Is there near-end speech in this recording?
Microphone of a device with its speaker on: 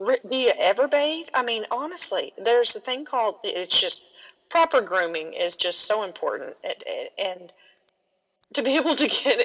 No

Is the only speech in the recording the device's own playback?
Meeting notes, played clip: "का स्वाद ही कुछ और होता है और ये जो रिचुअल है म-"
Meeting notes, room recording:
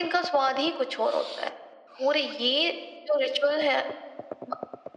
Yes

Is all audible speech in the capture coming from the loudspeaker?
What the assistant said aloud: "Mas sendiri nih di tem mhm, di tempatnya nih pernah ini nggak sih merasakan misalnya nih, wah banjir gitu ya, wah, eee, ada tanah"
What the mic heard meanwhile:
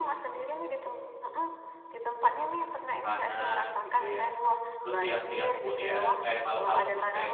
No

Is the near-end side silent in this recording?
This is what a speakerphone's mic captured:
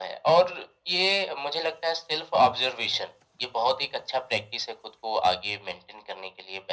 Yes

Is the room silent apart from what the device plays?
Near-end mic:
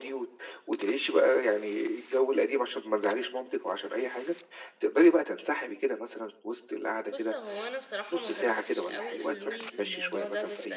No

